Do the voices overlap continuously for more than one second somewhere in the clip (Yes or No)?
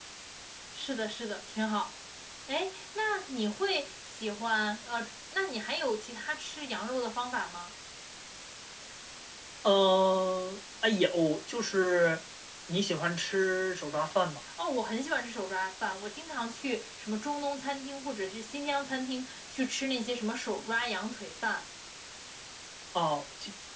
No